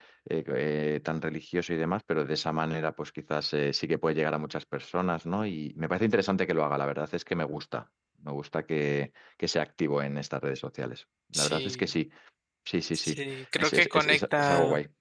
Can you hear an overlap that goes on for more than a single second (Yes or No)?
Yes